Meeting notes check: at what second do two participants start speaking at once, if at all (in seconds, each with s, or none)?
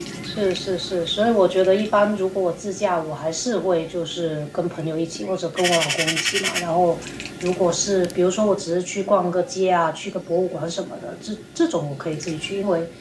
none